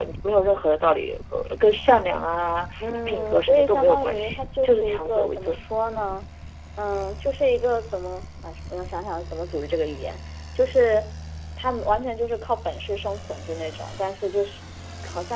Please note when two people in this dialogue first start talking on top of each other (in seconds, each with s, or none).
3.1 s